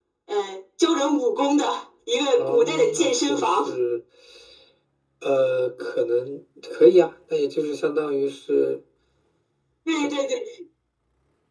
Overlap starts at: 2.4 s

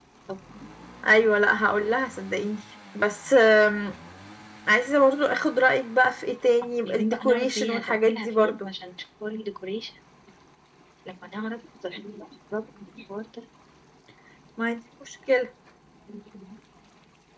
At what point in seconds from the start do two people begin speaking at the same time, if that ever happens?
6.9 s

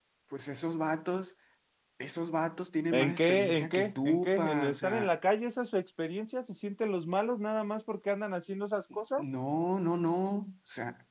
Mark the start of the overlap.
2.9 s

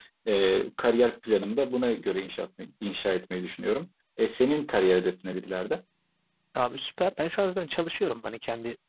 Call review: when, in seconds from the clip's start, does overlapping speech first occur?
none

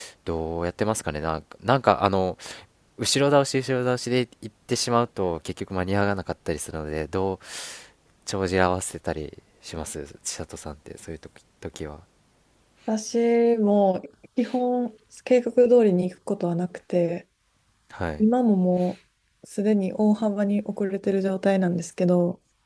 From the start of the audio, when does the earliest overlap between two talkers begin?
none

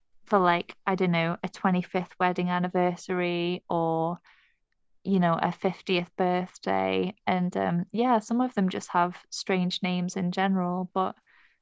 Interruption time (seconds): none

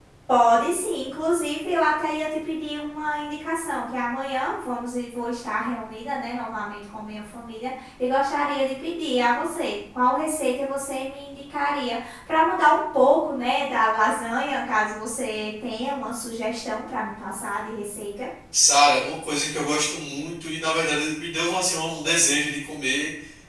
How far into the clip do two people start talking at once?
none

